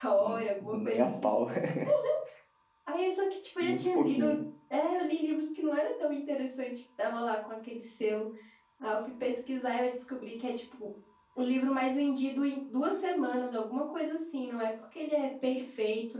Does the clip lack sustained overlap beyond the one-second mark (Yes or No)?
No